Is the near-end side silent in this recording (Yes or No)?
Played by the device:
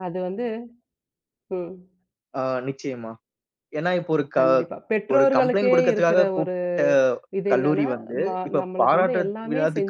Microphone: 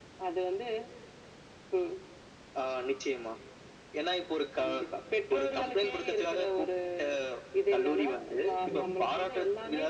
No